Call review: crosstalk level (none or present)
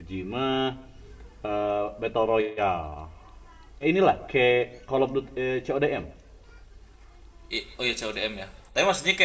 none